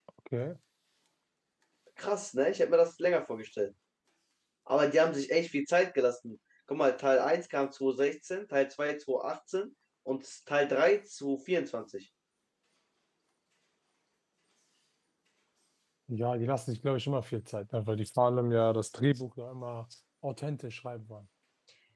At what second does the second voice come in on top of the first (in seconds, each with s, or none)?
none